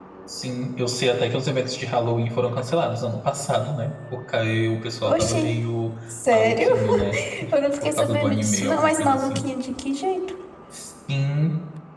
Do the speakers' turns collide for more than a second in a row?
Yes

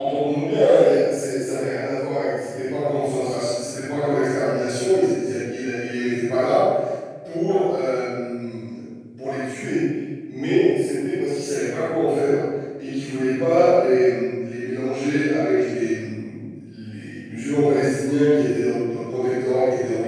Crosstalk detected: No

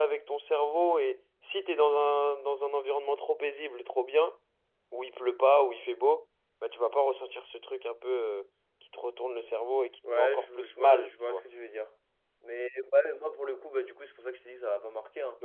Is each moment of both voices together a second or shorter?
No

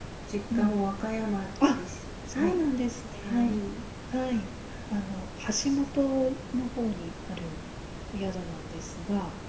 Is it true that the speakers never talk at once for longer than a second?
Yes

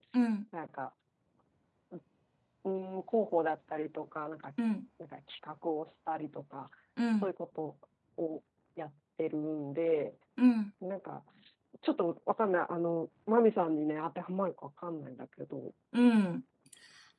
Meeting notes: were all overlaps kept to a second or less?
Yes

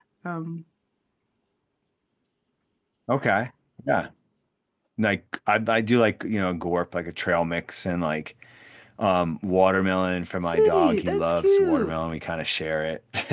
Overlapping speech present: Yes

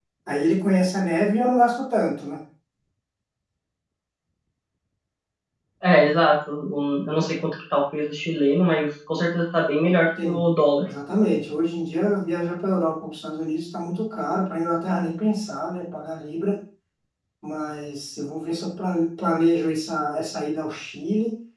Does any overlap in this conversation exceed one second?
No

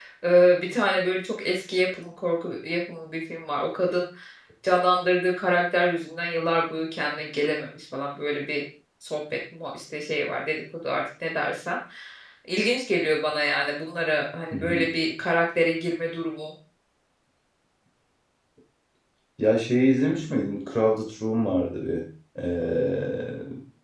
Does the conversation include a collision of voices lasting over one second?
No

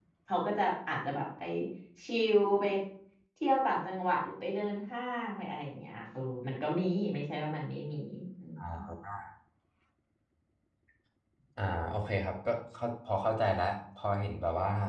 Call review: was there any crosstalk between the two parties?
No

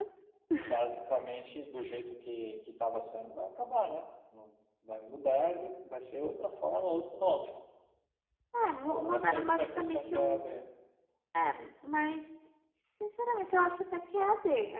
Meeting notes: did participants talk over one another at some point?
Yes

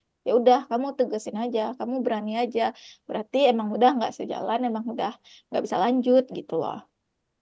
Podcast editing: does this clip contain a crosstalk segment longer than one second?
No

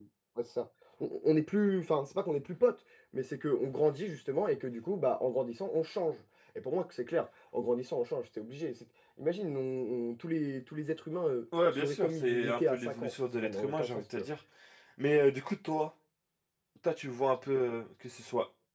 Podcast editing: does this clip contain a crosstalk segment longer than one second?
Yes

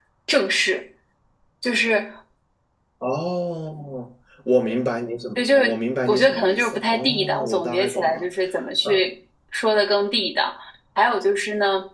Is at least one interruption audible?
Yes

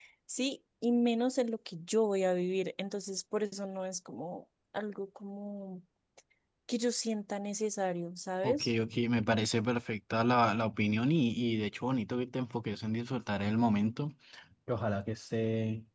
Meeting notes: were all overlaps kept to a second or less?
Yes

